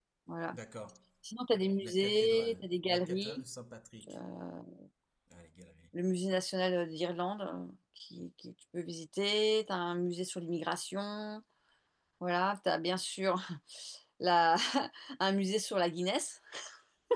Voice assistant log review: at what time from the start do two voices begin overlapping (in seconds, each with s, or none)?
1.8 s